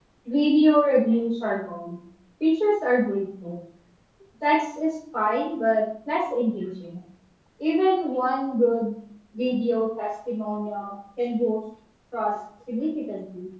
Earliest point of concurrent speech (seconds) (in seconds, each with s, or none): none